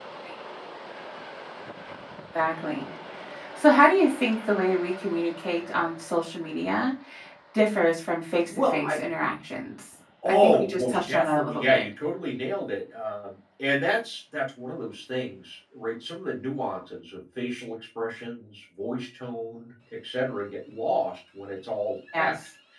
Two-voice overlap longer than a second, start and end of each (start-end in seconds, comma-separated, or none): 10.2-11.8